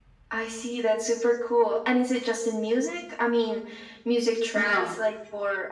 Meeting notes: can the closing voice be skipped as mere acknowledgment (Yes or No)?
Yes